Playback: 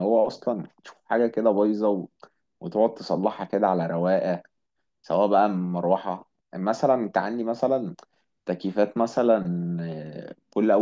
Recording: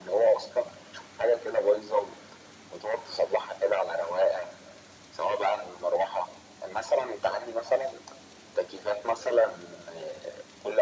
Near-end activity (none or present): none